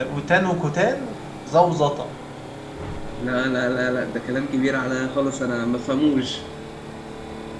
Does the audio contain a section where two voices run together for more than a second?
No

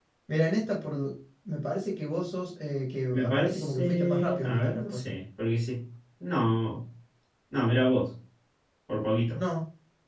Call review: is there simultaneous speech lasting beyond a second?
Yes, from 3.1 s

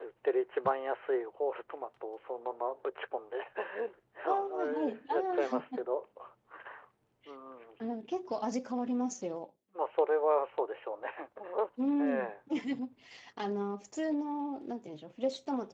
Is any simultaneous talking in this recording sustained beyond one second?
Yes, from 4.3 s

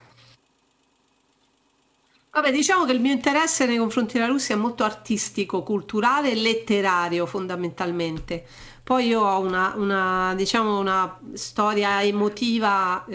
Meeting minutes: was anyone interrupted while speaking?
No

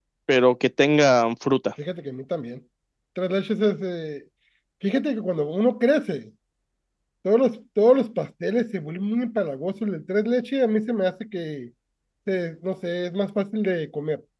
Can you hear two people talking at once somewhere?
No

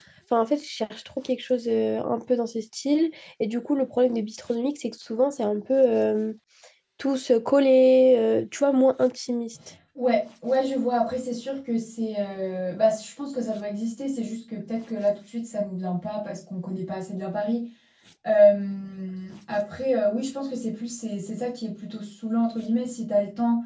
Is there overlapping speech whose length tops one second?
No

